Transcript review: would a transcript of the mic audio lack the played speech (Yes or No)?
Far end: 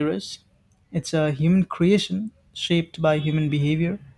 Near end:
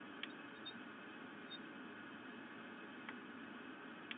Yes